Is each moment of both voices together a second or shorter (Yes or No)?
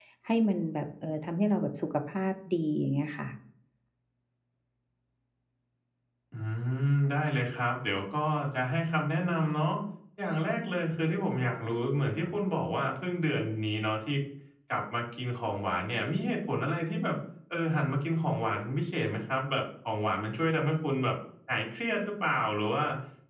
Yes